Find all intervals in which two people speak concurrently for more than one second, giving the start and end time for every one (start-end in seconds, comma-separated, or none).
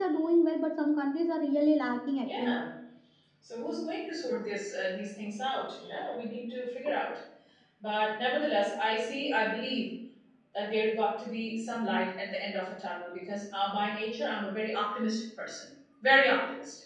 none